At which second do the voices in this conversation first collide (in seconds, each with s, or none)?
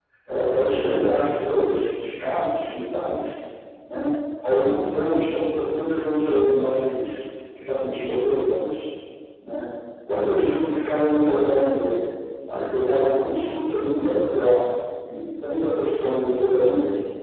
none